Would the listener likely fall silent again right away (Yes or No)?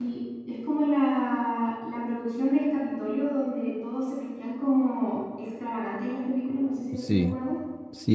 No